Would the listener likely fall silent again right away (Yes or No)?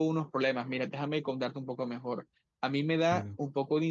Yes